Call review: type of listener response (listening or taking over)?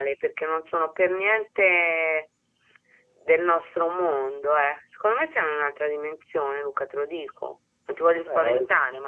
taking over